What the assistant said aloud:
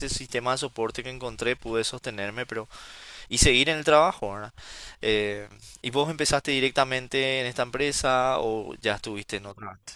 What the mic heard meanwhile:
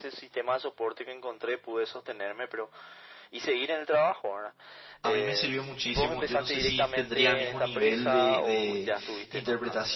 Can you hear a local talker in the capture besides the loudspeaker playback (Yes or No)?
Yes